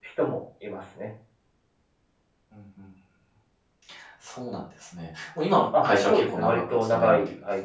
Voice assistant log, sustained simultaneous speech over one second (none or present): present